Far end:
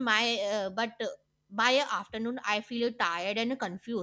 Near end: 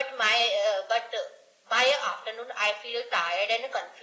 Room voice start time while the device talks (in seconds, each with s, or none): none